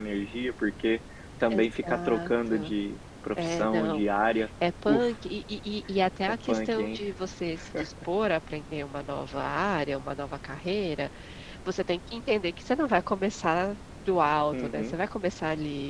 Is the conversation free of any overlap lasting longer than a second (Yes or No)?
No